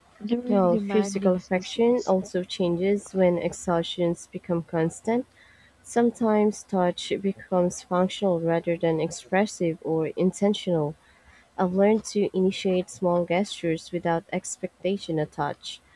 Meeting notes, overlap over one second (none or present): present